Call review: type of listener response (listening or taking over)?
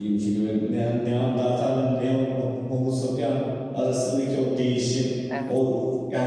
listening